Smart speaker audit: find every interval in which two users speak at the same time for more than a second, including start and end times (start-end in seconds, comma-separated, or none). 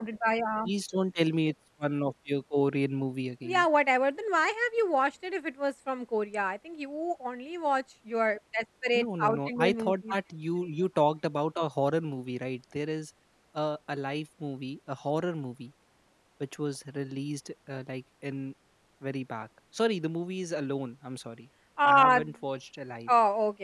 8.9-10.2